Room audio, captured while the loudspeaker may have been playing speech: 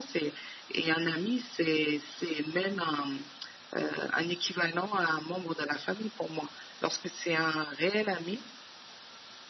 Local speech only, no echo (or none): none